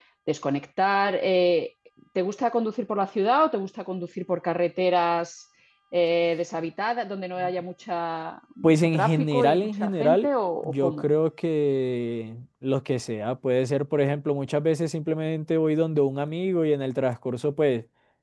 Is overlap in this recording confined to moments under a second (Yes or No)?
No